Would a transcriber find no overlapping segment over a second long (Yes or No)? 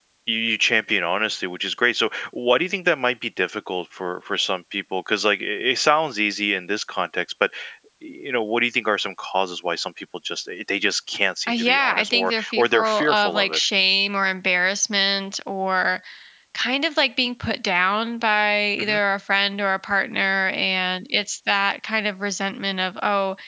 No